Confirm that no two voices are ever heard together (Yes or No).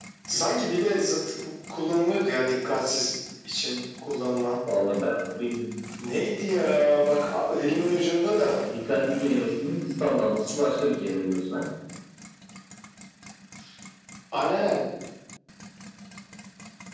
Yes